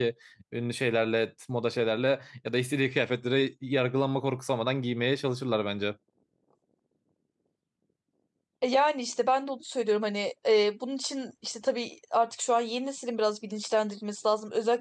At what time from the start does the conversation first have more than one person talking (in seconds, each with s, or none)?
none